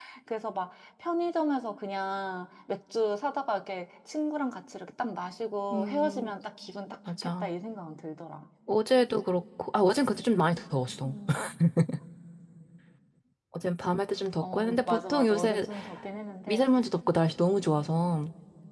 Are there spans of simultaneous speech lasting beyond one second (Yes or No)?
Yes